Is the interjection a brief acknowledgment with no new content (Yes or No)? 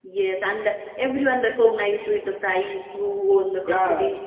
No